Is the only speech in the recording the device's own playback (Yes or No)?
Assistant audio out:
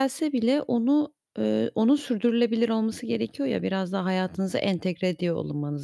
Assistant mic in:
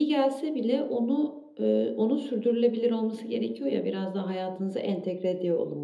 Yes